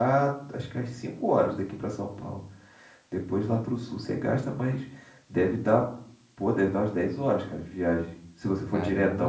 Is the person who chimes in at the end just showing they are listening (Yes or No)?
No